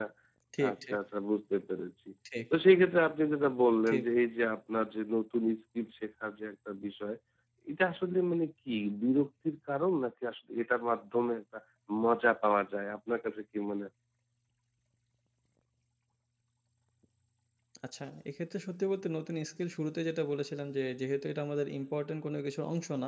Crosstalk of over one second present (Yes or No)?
No